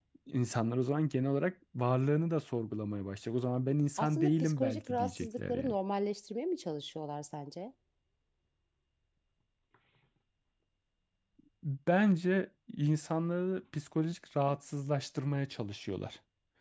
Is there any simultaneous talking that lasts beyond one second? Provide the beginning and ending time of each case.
4.0-5.8

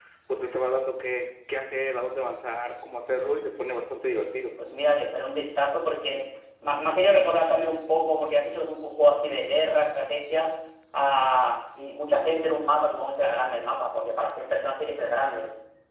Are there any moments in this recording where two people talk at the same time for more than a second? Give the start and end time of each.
none

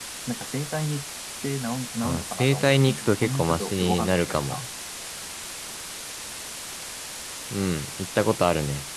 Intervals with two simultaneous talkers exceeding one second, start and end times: 2.0-4.6

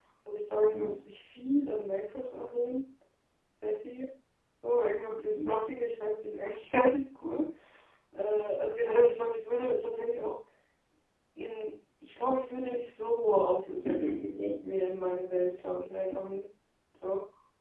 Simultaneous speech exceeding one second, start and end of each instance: none

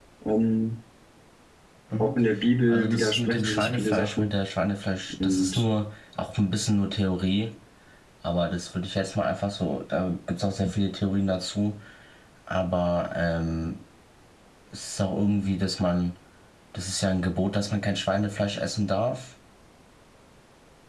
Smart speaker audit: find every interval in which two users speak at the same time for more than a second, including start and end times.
2.7-4.3

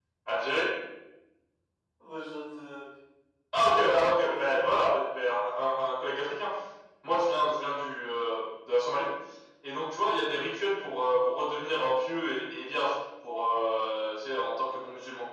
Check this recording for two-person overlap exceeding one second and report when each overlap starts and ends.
3.6-4.8

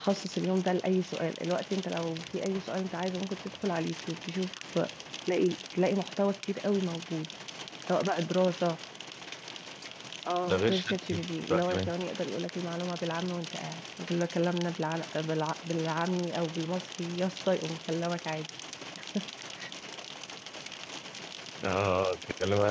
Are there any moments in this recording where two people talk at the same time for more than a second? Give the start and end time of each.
10.5-11.9

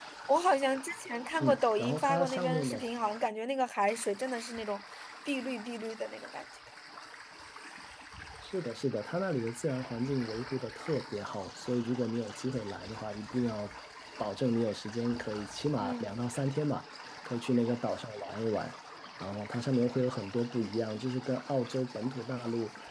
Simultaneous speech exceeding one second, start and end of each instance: 1.4-2.8

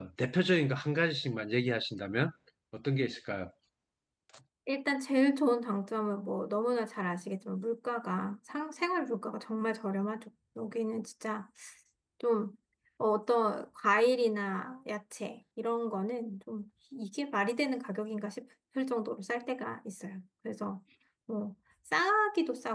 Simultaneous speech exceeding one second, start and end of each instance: none

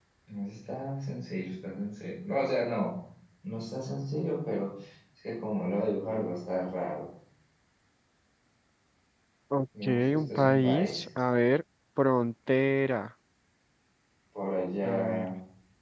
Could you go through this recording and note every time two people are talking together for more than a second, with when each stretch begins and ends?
9.8-11.1

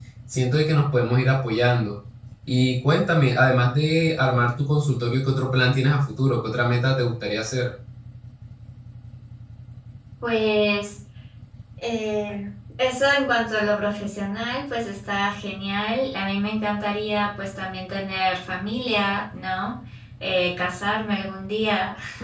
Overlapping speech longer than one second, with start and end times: none

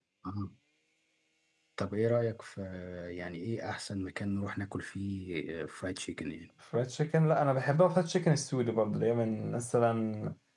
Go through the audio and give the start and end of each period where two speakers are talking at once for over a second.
none

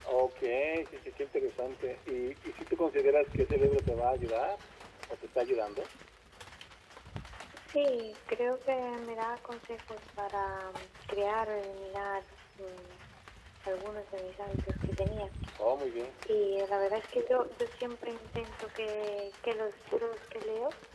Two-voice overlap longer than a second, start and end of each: none

